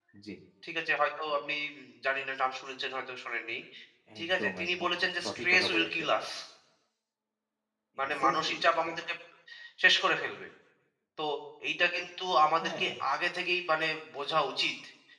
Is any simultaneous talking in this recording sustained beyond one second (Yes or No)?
Yes